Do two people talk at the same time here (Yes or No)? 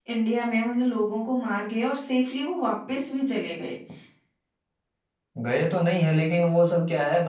No